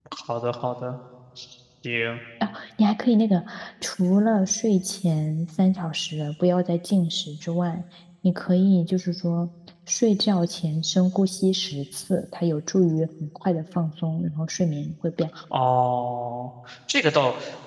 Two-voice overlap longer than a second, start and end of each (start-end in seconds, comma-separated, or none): none